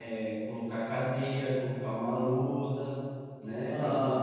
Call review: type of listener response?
listening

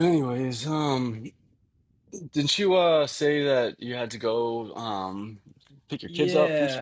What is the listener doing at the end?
taking over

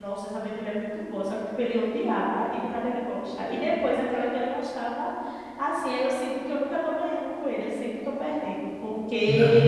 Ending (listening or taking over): listening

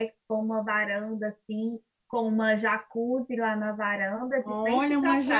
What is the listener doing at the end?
taking over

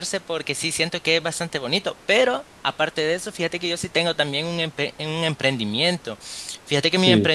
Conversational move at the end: listening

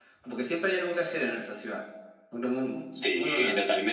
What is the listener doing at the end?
taking over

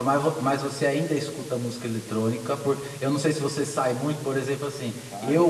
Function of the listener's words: listening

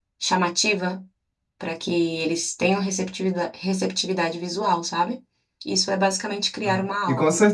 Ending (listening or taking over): taking over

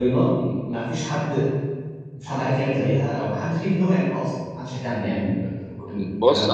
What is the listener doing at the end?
taking over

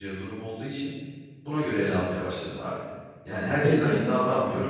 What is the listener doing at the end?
listening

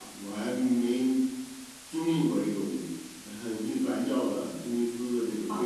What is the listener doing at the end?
taking over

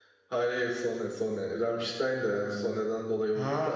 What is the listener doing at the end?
taking over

